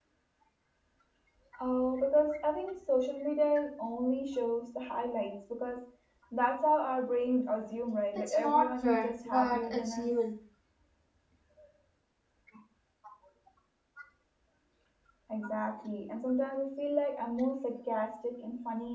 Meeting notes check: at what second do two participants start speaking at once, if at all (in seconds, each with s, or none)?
8.2 s